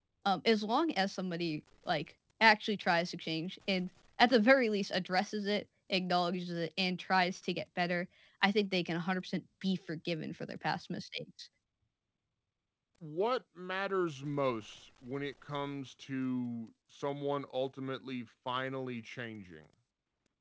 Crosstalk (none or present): none